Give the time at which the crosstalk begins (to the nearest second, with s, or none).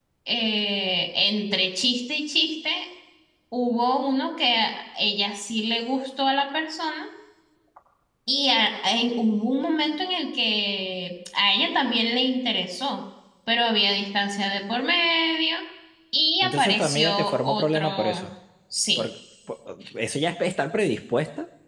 16 s